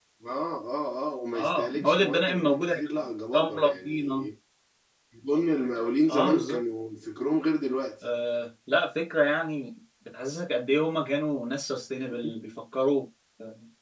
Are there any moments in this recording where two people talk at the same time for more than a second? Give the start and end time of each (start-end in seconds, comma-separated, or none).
1.4-4.2